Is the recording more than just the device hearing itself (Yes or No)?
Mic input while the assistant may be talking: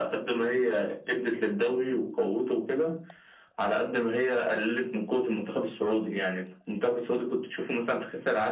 No